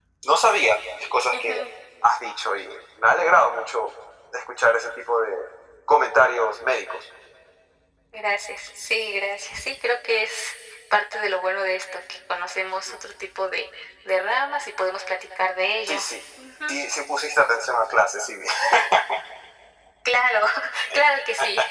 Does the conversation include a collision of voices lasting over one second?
No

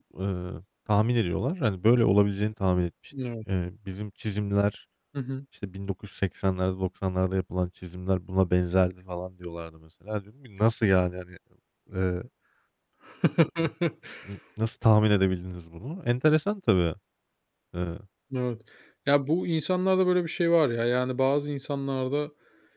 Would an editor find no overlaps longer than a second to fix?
Yes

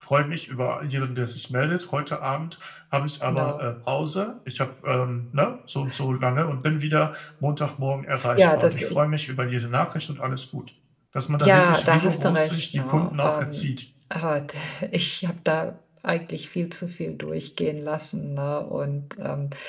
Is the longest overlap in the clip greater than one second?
Yes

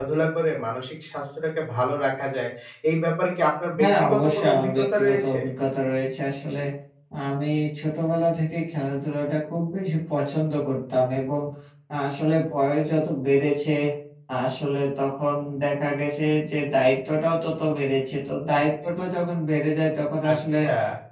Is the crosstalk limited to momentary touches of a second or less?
No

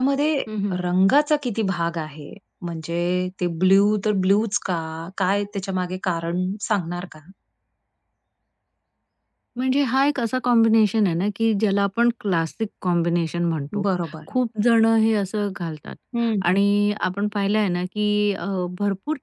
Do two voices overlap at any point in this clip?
No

